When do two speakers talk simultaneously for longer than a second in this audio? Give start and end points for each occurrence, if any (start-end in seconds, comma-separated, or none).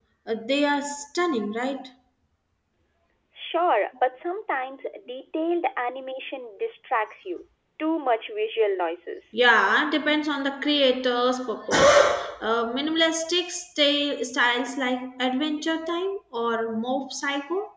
none